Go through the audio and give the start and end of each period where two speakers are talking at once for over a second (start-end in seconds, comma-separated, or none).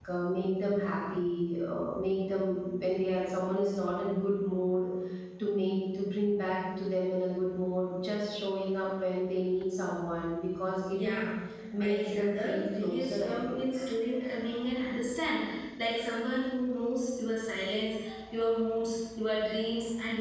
11.8-13.6